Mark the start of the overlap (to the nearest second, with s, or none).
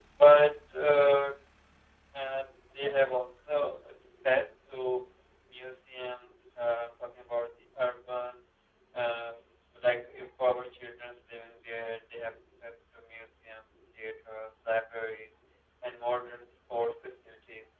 none